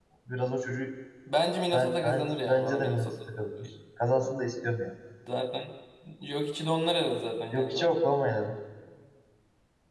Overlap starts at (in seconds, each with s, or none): 1.7 s